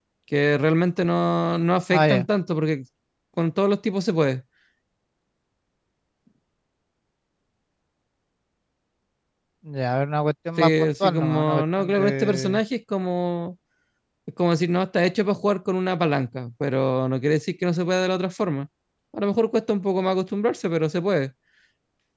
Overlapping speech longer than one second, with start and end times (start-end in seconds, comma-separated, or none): 10.6-12.6